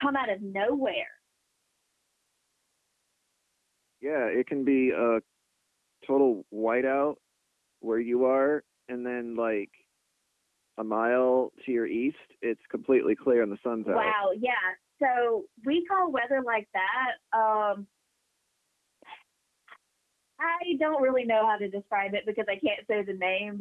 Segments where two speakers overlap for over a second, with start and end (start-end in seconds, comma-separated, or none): none